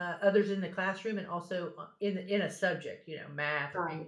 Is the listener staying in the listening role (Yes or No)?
No